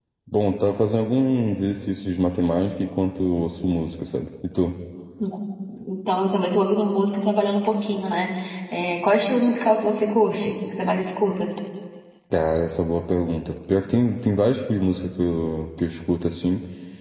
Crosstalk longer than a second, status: none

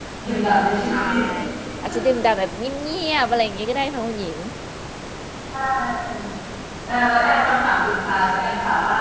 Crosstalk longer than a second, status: none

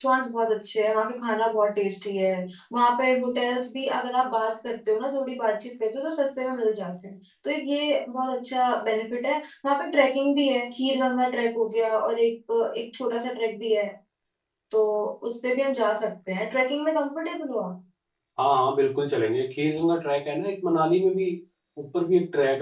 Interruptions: none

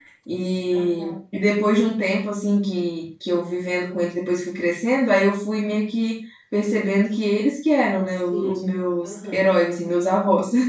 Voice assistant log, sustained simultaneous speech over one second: present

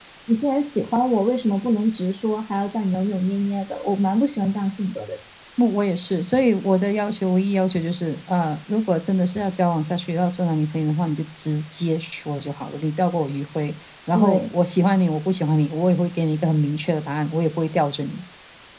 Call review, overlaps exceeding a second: none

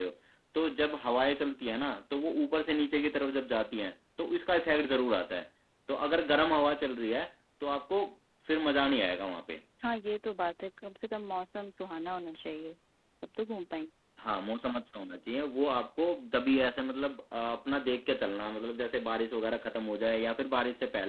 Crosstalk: none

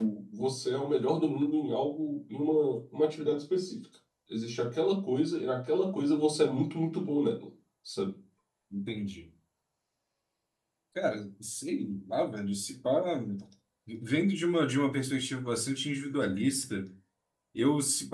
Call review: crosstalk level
none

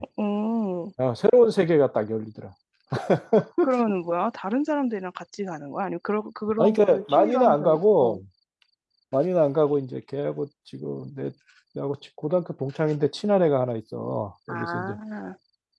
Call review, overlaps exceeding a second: present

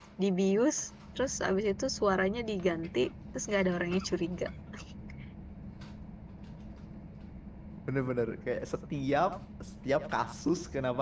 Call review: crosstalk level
none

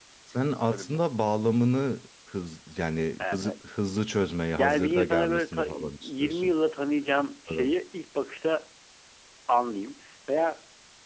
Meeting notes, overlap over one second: present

